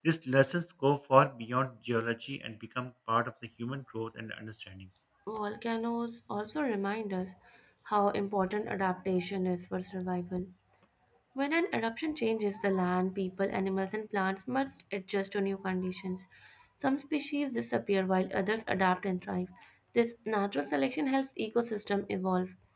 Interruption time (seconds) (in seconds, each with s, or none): none